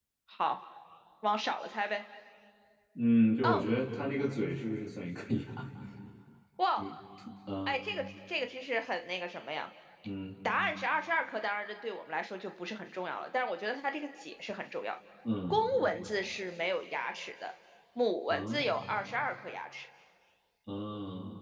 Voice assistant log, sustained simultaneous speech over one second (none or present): none